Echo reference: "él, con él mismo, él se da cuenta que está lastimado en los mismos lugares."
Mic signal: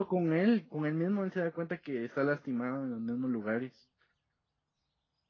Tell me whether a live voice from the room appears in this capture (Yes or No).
No